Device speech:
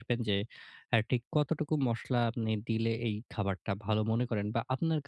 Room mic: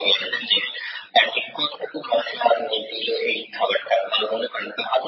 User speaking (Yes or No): No